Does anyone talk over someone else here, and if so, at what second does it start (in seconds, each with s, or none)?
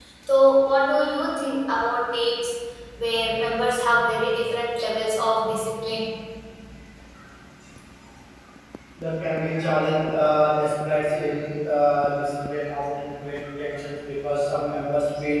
none